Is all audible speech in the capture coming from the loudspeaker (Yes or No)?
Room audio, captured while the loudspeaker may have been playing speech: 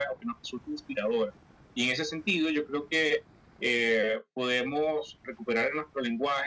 Yes